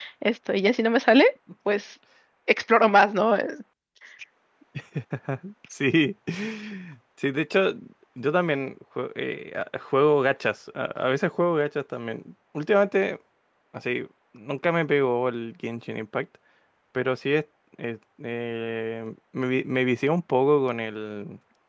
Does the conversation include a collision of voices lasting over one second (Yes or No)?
No